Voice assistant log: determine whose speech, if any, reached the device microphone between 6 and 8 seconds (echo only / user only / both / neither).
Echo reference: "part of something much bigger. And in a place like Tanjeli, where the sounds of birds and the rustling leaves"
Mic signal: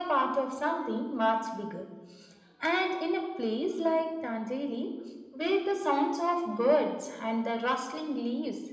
echo only